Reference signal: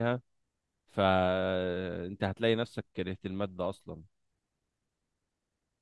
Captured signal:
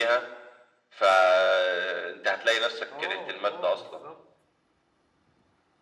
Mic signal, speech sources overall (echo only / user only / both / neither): both